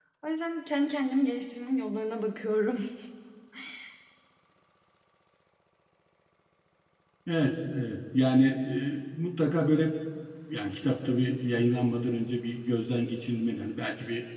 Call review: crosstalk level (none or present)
none